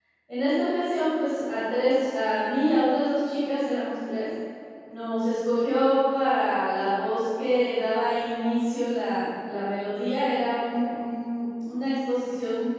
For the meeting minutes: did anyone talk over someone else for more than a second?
No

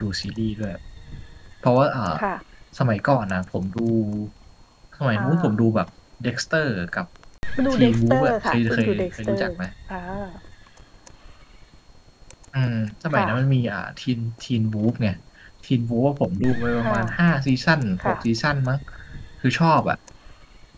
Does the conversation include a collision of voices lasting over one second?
Yes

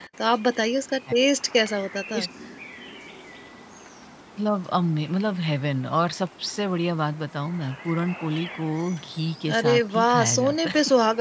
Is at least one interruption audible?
Yes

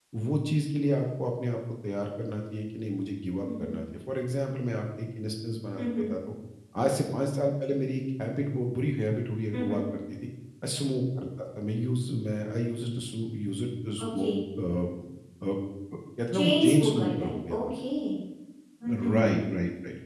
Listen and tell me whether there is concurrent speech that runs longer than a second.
Yes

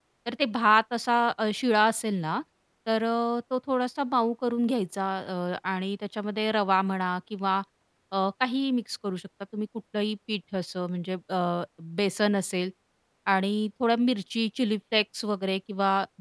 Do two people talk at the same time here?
No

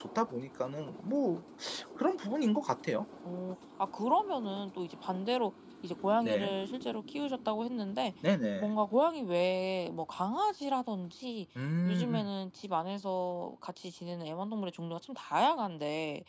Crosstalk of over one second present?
No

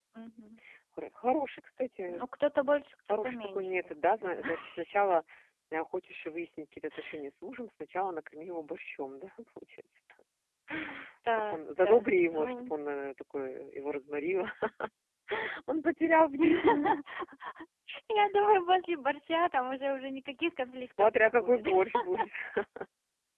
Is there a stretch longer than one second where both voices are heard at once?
Yes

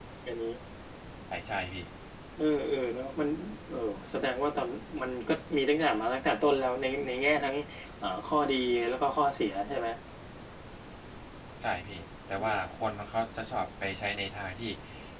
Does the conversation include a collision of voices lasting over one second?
No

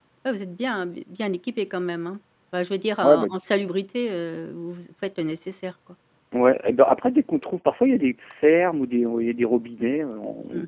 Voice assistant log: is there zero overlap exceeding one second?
Yes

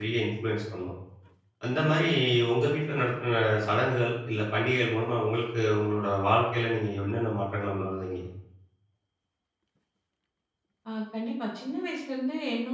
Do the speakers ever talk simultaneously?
No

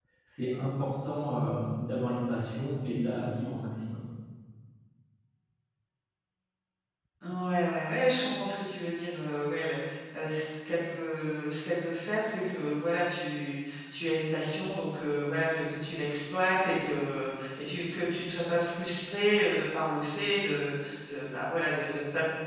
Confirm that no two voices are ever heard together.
Yes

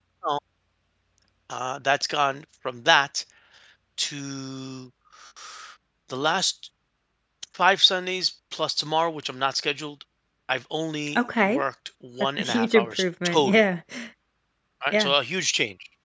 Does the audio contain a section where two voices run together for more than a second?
Yes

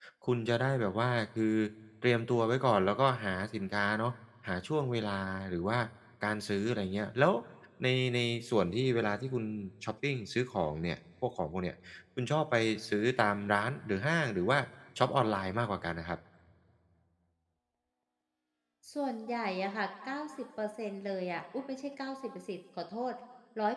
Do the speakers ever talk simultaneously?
No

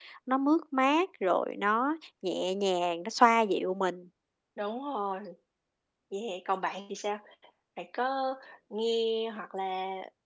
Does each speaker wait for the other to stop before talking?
Yes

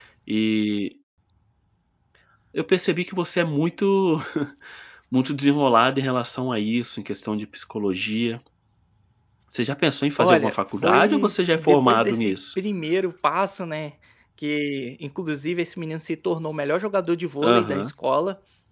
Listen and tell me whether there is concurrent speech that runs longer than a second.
Yes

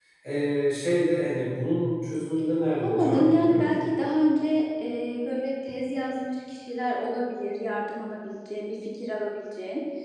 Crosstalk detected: Yes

